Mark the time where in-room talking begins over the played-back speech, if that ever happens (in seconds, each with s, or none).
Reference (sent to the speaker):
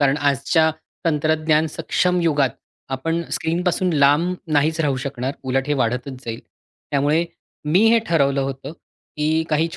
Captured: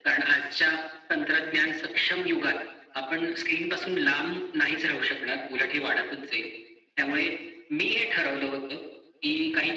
none